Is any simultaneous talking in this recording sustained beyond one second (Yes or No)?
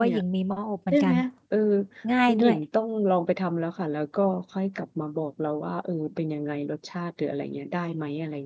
No